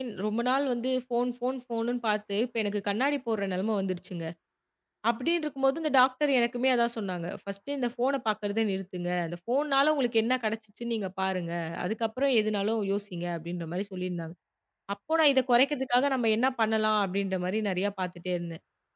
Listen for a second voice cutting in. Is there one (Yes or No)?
No